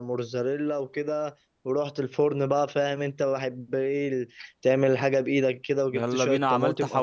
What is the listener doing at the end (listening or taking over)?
taking over